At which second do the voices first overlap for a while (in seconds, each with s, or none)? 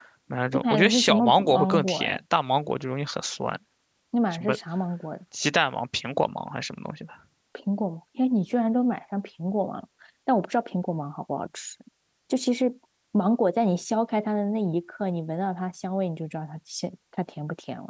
0.5 s